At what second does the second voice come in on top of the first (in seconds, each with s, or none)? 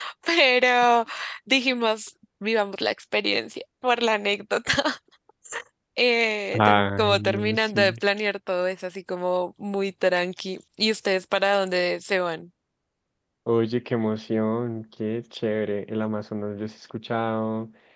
6.5 s